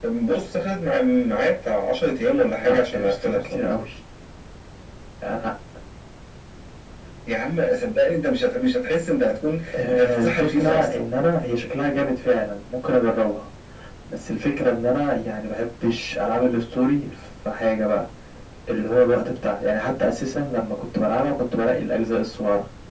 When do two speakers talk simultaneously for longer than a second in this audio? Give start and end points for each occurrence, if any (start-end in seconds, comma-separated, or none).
2.4-3.6, 9.8-11.0